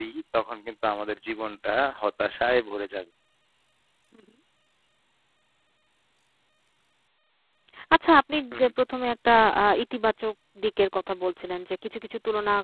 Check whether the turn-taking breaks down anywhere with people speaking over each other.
No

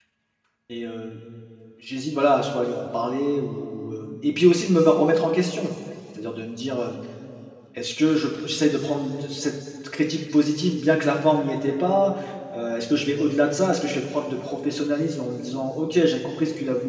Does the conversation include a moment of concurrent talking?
No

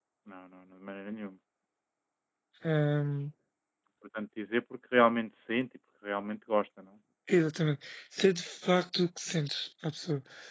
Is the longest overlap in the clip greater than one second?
No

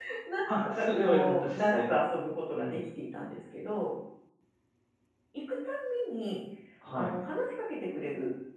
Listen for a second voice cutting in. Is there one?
Yes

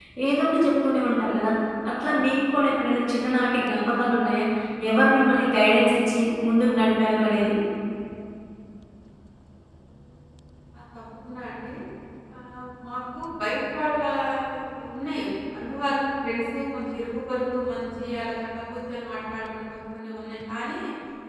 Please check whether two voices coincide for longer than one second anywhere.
No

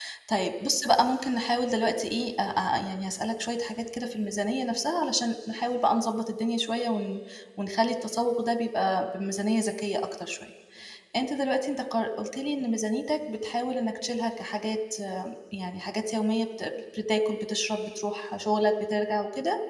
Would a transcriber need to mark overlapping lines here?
No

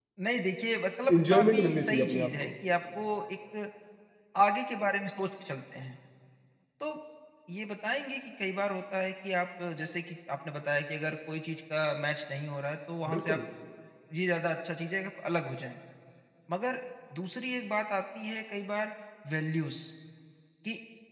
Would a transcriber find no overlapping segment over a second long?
No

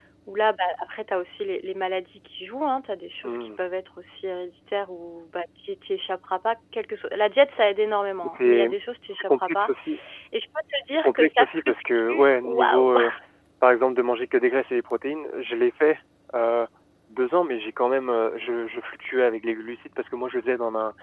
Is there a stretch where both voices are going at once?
Yes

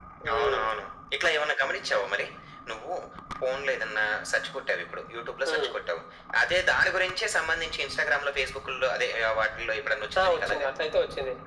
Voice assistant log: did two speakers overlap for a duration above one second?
No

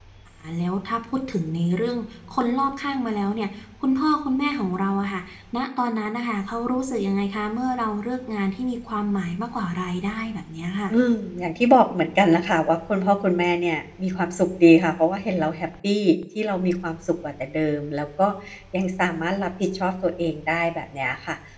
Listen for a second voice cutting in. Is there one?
No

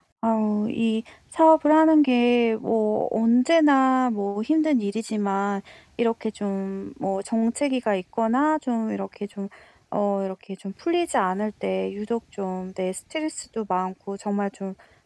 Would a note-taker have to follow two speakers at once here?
No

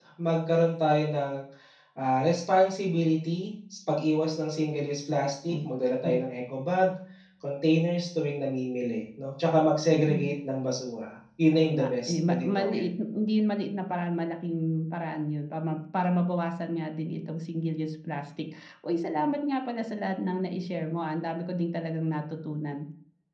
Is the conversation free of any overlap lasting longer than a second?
No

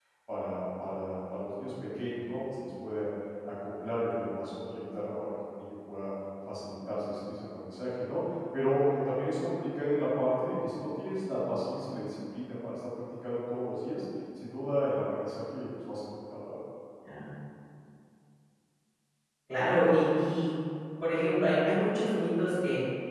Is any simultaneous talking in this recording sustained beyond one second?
No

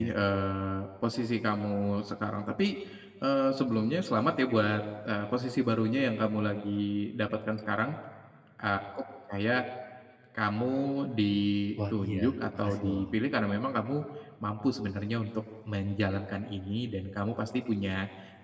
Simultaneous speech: Yes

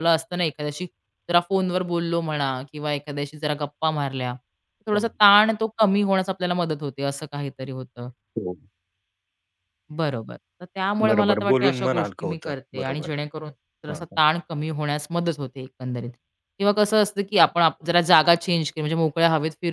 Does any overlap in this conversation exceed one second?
Yes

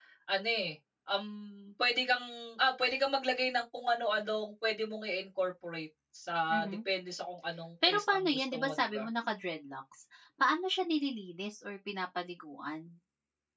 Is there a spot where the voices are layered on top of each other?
Yes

